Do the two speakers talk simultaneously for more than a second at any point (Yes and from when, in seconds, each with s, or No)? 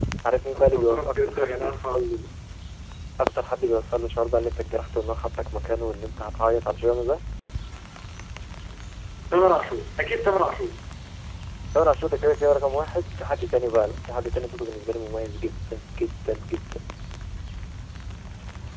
Yes, from 0.6 s